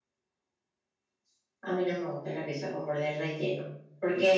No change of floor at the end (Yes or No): Yes